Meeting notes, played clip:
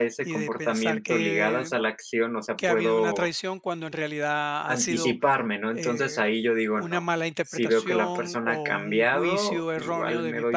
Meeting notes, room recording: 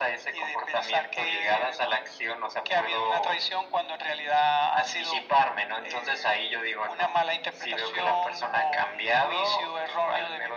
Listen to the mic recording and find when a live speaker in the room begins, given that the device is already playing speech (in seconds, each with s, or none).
none